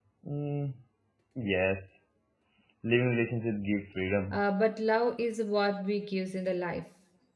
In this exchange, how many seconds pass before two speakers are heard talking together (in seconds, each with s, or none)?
none